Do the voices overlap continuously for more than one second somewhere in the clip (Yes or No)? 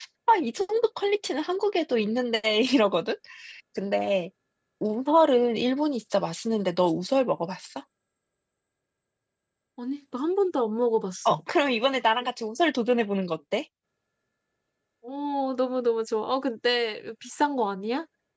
No